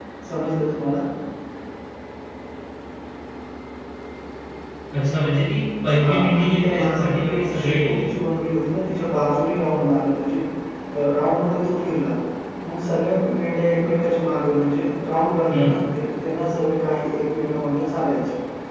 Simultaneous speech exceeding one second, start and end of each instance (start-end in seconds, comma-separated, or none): 6.0-8.1